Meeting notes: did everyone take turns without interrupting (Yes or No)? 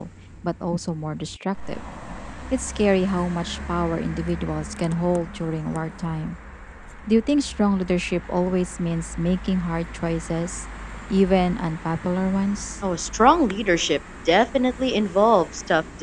Yes